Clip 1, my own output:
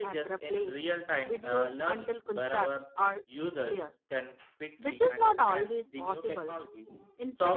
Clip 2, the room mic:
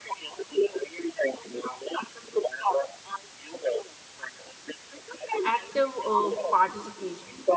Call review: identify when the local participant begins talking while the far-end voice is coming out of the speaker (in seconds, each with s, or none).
5.4 s